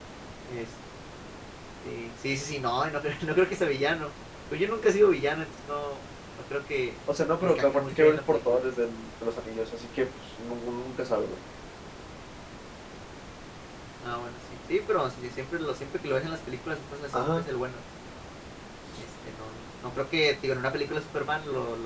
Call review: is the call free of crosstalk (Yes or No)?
No